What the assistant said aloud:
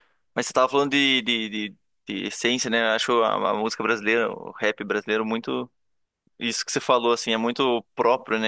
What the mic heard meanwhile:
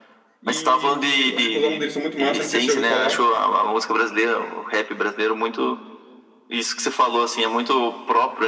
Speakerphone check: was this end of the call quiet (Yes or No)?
No